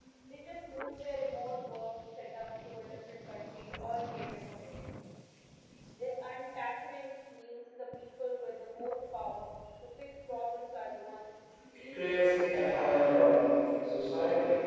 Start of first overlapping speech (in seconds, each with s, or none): 11.7 s